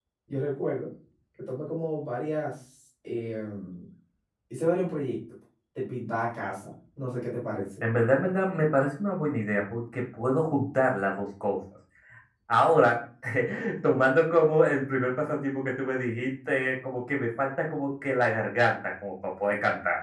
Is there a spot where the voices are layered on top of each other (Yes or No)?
No